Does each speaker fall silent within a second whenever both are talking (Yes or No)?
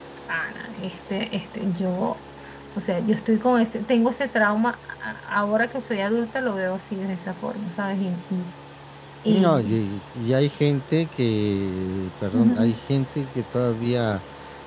Yes